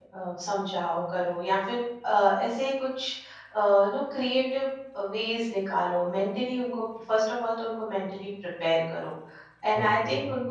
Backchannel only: Yes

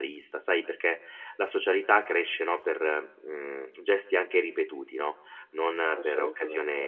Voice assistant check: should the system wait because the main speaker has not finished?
Yes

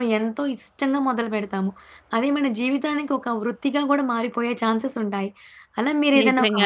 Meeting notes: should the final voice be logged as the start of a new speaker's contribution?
No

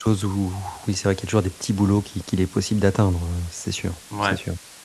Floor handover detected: Yes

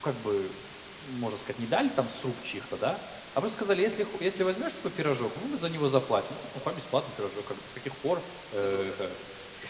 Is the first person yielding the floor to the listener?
No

